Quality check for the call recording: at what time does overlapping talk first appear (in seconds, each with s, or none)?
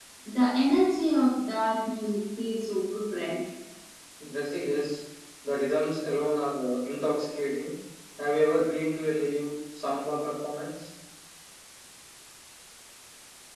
none